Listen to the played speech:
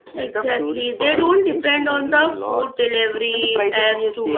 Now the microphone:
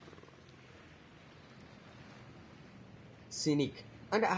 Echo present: No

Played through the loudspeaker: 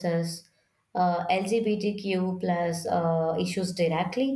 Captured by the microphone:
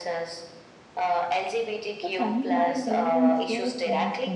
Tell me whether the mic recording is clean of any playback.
No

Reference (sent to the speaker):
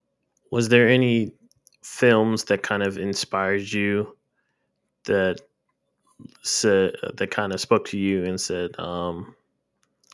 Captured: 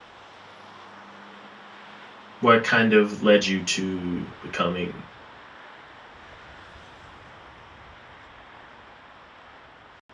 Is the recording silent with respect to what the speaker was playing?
Yes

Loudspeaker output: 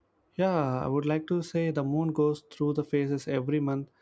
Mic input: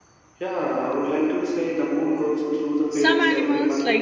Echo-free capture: No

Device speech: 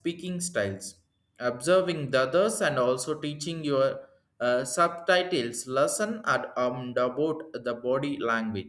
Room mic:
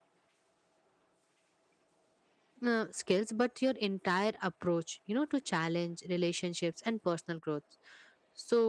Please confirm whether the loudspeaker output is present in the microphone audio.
No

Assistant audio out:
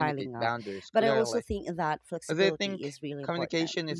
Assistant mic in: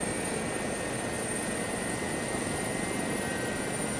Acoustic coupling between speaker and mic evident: No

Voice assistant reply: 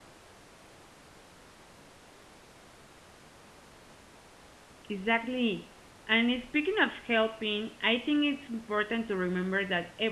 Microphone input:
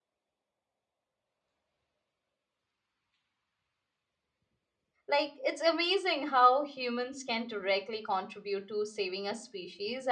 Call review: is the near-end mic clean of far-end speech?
Yes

